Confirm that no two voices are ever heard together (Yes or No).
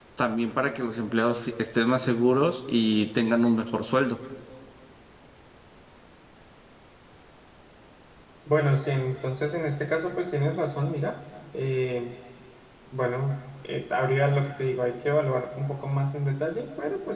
Yes